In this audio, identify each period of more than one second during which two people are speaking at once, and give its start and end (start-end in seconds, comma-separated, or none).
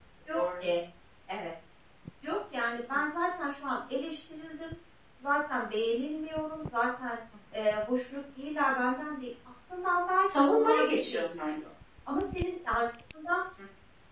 10.3-11.6